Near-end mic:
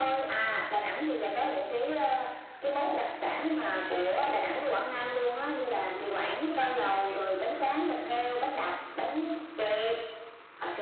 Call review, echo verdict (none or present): present